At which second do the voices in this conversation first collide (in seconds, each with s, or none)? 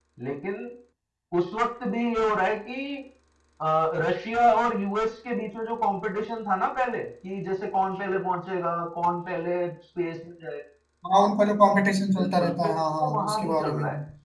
12.1 s